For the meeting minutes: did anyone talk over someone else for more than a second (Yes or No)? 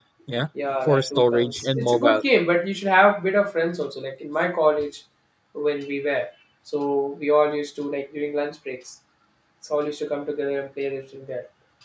Yes